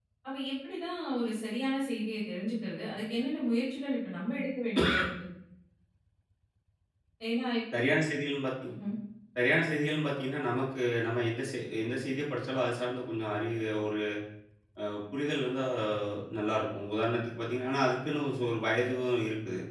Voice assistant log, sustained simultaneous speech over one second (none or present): none